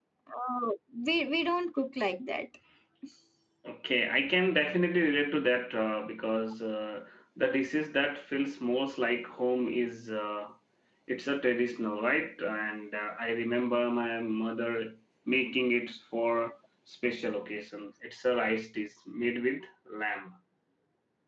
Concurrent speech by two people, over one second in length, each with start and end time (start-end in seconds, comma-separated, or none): none